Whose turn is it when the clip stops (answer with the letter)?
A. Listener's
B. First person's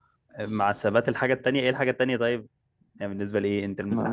A